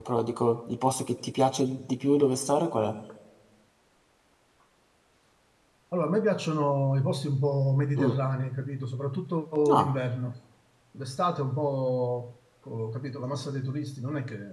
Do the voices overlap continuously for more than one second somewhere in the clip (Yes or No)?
No